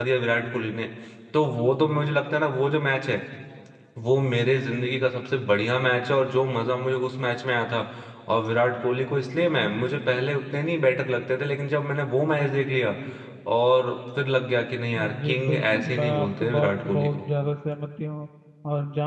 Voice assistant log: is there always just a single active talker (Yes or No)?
No